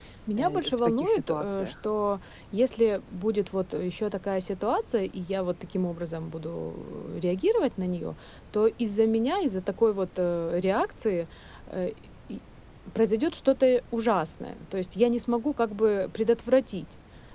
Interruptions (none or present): present